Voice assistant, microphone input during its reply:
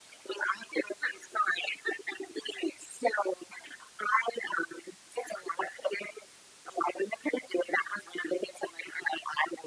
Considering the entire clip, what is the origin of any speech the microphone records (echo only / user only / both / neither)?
echo only